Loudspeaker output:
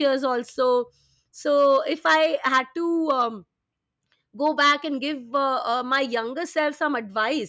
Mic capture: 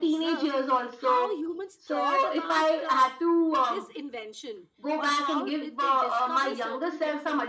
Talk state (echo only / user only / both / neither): both